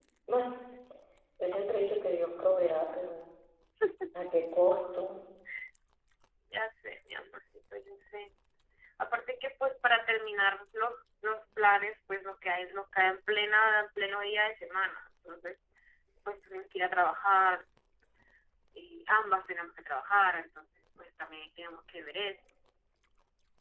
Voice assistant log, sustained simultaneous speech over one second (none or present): none